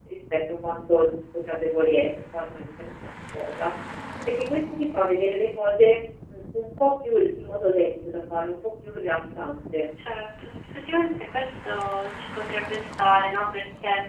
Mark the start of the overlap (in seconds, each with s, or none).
none